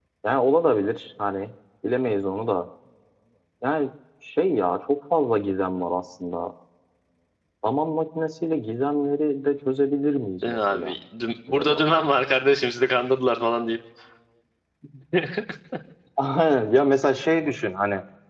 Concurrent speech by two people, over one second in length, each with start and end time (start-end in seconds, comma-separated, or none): none